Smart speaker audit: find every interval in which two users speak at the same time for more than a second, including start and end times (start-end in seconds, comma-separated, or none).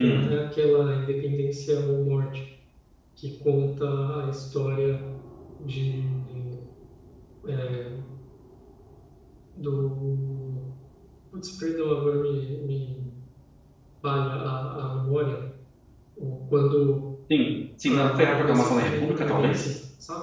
17.9-19.7